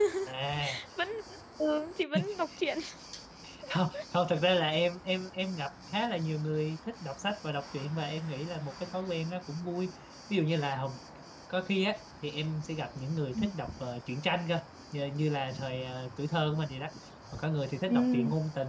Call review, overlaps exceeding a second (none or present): none